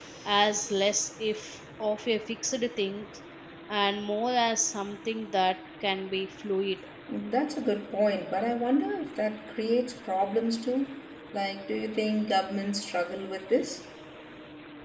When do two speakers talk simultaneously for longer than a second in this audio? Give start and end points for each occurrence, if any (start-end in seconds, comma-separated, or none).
none